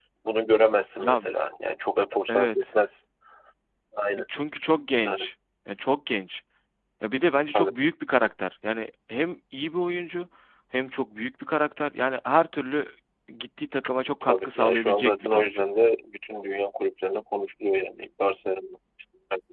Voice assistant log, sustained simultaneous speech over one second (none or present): present